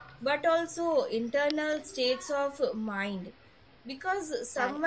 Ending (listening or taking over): listening